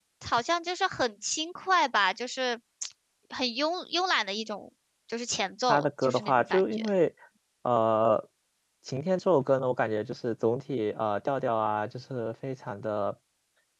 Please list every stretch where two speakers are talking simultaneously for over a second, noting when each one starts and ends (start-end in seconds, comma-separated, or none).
5.7-6.9